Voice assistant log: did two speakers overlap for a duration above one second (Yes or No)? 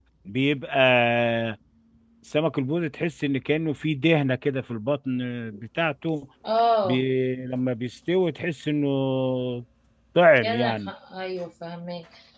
No